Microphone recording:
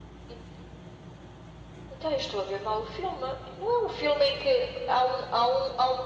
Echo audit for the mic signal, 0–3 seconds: echo only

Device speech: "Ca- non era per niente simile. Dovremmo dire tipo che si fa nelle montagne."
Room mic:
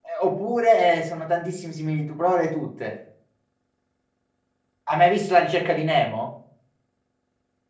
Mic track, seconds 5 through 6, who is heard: user only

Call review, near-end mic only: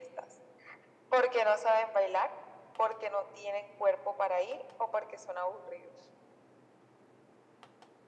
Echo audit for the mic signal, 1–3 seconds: echo only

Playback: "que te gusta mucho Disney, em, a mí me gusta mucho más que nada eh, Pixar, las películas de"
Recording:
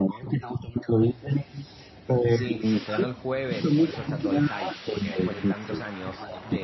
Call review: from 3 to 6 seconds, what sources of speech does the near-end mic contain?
both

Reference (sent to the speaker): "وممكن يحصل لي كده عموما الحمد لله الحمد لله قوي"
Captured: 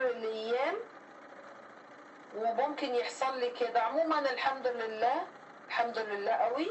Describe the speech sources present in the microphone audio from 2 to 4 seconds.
echo only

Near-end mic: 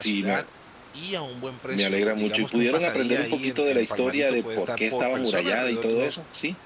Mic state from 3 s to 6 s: both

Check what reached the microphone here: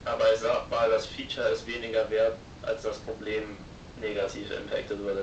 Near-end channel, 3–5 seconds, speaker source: echo only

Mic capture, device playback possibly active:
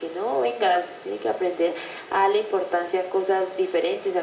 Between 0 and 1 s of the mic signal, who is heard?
echo only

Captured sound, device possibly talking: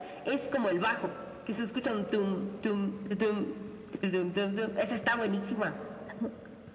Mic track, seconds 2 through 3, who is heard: echo only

